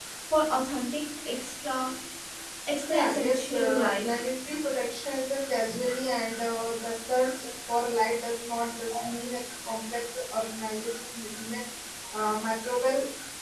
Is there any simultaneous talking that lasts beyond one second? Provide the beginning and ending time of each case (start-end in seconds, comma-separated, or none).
2.9-4.2